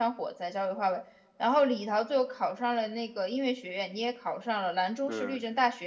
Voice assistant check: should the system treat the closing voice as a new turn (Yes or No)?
No